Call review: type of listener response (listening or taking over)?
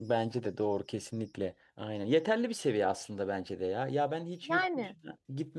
listening